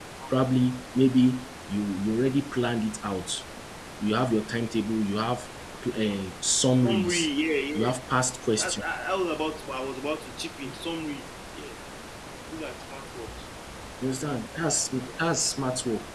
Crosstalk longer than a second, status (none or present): none